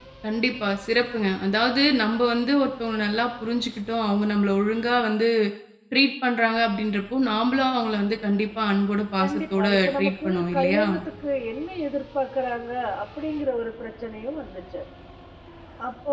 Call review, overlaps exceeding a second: present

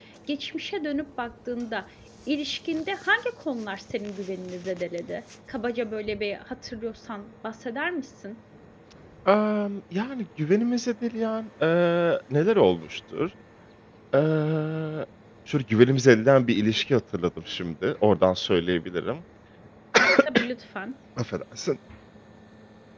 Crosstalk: none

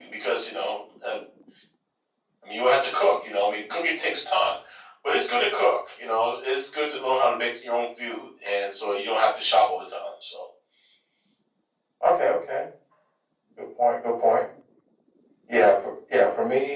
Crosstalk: none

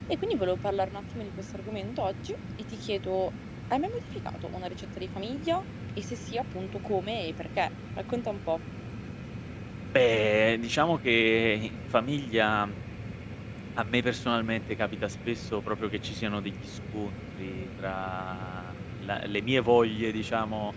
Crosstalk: none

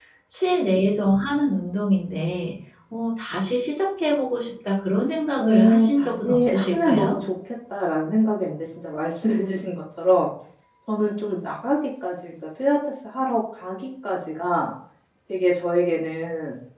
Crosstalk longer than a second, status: present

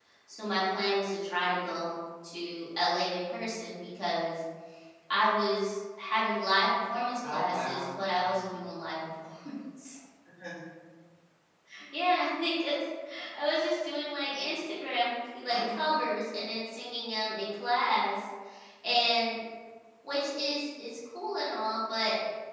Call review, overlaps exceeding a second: present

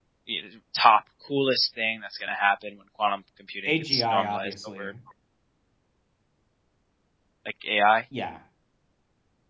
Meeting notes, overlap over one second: present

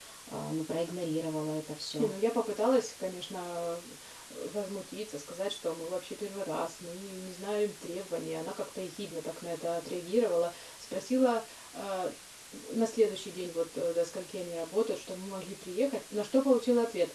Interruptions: none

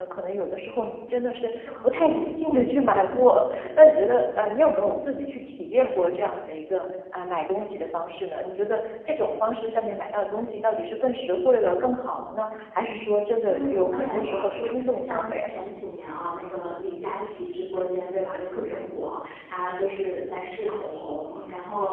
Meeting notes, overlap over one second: present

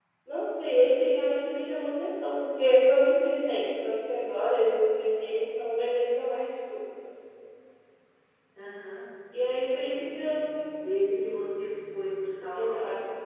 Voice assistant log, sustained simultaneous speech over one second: none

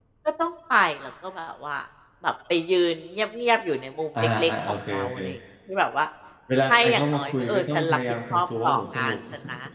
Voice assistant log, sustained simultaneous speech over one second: present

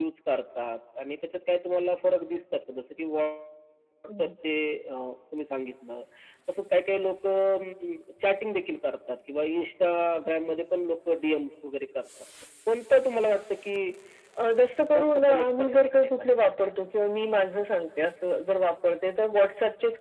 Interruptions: present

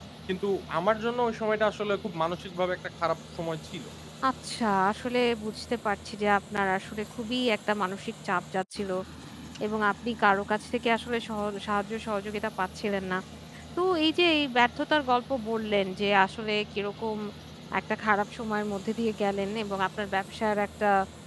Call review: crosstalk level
none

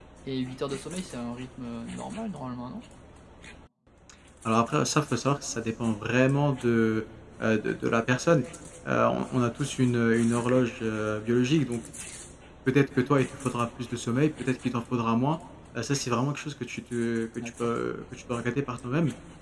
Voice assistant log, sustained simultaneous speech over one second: none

